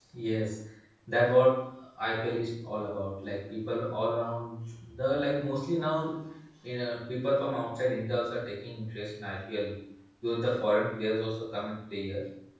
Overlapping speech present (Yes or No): No